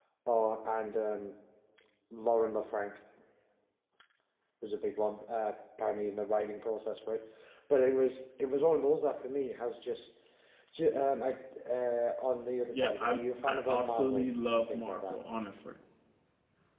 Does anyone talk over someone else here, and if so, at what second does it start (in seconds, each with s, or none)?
12.7 s